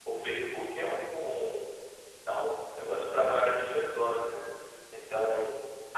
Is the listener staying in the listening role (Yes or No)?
Yes